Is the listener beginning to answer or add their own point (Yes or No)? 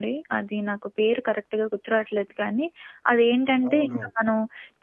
No